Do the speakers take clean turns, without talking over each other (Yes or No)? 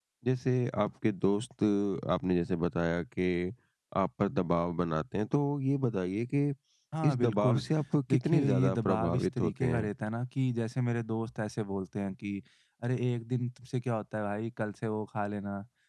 No